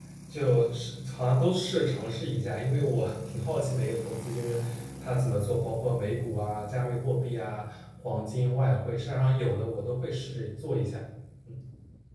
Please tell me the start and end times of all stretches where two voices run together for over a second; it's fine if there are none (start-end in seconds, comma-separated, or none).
none